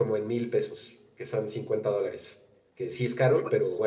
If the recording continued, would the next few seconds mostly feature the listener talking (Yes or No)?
No